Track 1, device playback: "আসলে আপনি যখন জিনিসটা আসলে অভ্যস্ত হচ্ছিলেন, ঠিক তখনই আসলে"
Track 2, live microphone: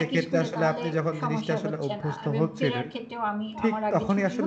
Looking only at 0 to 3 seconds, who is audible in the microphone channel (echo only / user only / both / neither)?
both